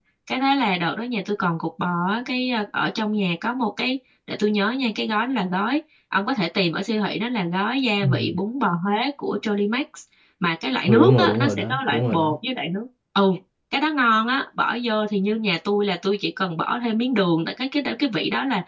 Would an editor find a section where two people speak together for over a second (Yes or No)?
Yes